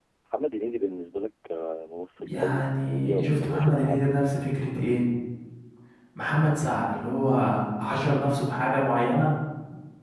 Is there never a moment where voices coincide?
No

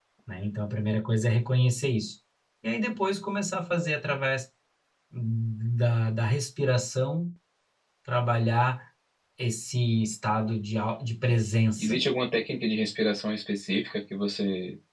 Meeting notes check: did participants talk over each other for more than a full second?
No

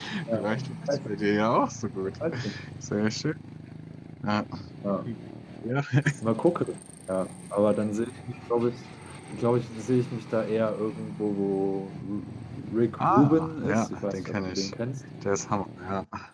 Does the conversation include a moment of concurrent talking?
Yes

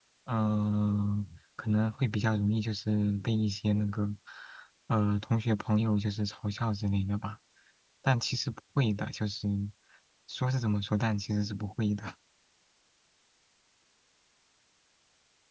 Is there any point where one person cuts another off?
No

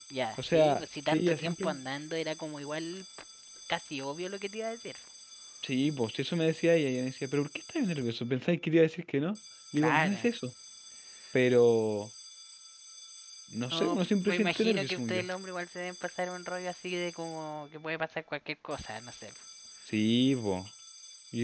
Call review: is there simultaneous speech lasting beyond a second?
Yes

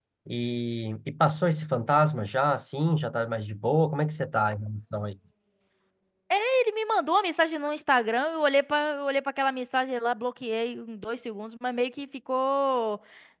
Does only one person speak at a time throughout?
Yes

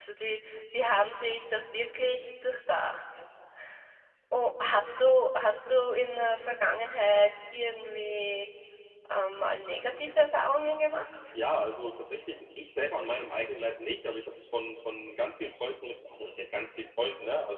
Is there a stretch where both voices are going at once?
No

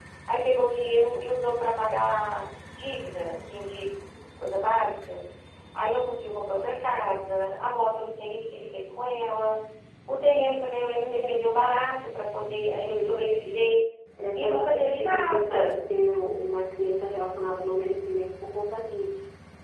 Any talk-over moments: Yes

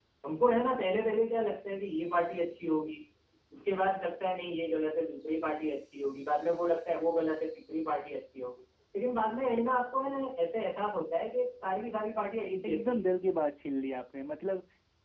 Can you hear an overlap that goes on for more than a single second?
No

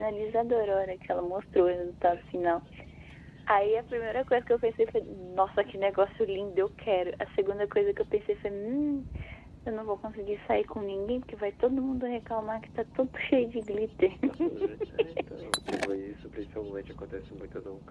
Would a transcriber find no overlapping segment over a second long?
Yes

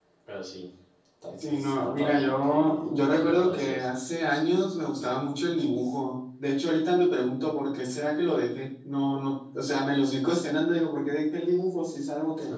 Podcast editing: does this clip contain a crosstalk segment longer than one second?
Yes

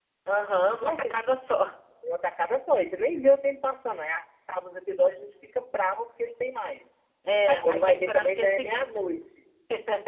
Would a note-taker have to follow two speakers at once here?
Yes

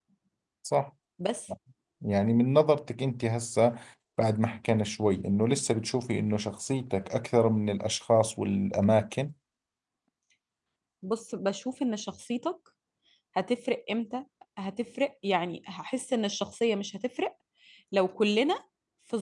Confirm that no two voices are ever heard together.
Yes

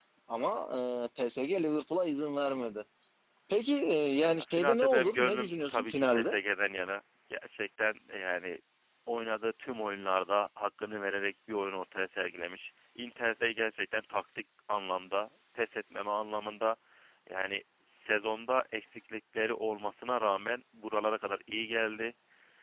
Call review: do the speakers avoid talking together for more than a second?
No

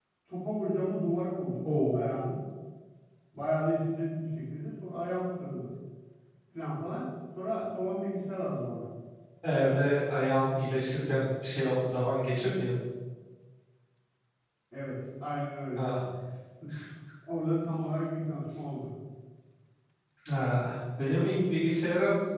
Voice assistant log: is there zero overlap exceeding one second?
Yes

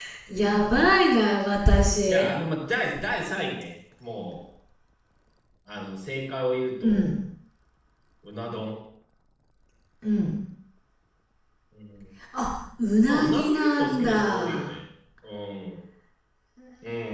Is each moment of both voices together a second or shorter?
No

